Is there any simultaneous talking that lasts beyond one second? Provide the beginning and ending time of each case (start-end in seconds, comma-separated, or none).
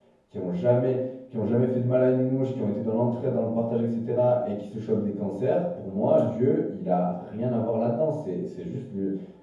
none